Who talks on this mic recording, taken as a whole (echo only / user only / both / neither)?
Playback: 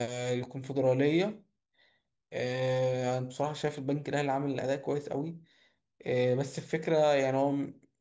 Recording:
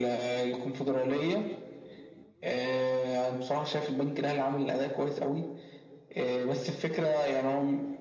echo only